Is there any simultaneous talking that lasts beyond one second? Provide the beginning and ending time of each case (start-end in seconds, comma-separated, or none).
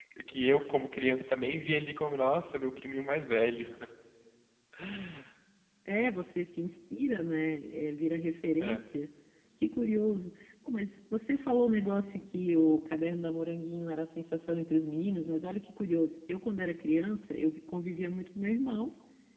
none